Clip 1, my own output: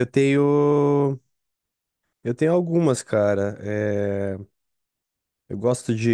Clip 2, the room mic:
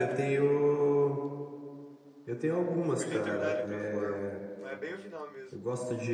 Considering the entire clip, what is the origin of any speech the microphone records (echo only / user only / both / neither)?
both